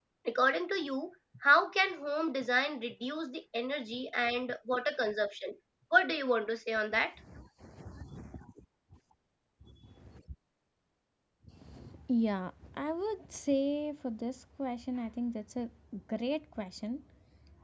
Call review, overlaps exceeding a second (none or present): none